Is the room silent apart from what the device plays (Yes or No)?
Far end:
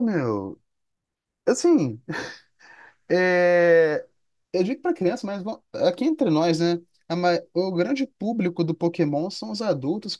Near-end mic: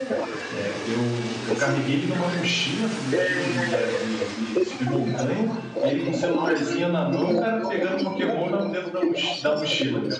No